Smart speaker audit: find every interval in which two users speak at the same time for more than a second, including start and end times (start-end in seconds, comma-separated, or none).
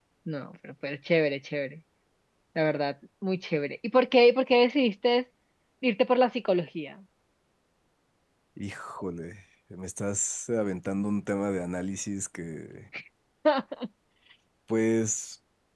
none